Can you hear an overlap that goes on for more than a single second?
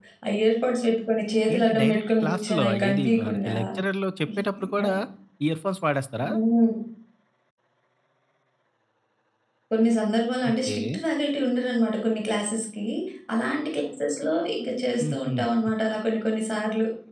Yes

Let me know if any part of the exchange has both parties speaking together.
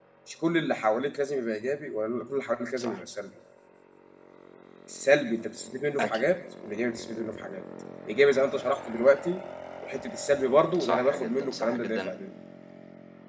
Yes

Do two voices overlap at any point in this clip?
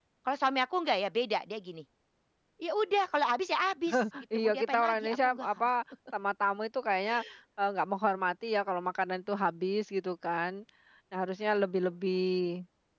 Yes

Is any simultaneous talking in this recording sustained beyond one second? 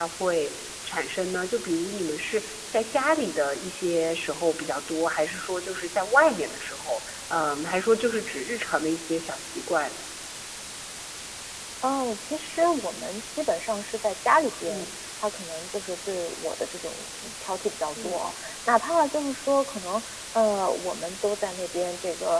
No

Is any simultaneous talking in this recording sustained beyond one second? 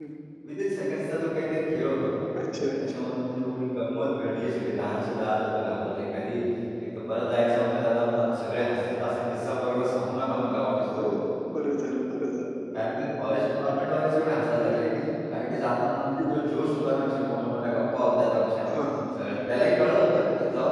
No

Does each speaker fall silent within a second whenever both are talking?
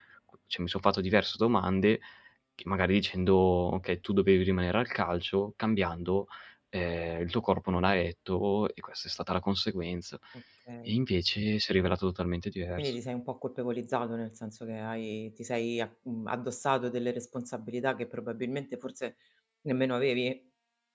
Yes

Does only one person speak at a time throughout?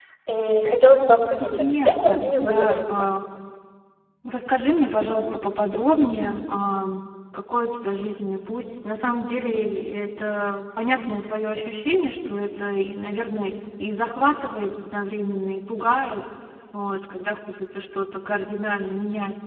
No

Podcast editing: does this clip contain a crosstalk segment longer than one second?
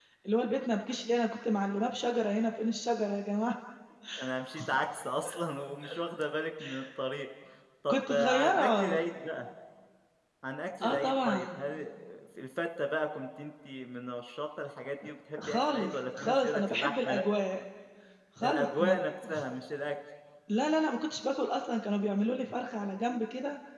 Yes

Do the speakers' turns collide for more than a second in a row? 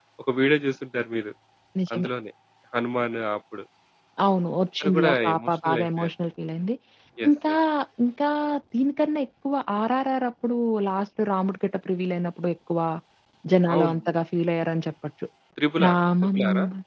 Yes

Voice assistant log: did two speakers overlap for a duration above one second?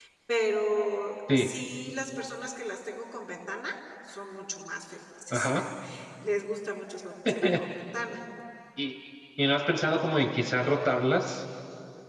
No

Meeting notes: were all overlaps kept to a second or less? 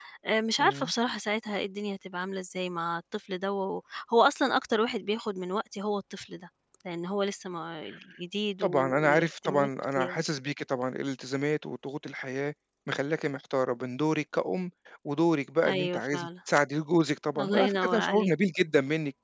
No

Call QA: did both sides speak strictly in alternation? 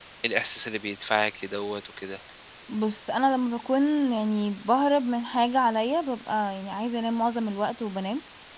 Yes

